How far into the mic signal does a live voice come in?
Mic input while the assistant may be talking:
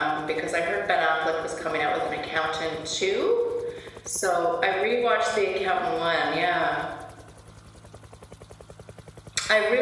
none

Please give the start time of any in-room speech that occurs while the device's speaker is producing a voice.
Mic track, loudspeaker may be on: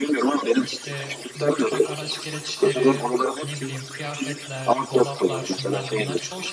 1 s

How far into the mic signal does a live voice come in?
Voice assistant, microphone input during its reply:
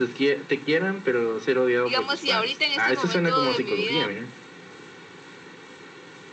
2 s

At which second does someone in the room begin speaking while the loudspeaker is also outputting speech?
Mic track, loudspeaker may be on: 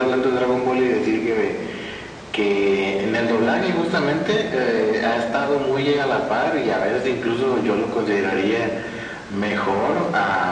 none

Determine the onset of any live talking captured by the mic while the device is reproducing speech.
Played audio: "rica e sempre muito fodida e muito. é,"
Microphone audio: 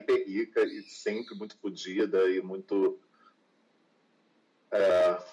none

